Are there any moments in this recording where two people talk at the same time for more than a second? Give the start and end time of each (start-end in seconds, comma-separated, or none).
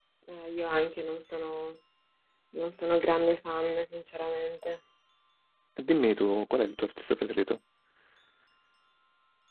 none